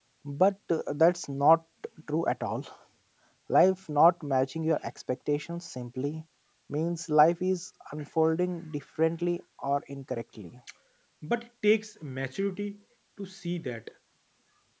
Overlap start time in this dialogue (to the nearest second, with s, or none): none